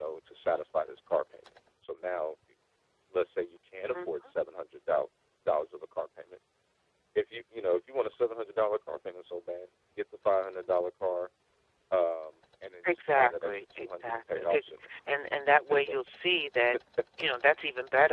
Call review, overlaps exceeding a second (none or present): present